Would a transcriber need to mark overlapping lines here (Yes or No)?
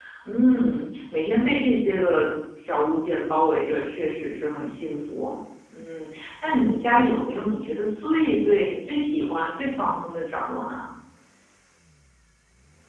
No